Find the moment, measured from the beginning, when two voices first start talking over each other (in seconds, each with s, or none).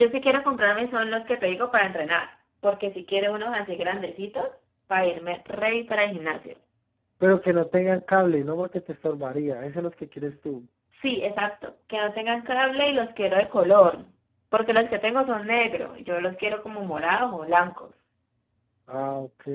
none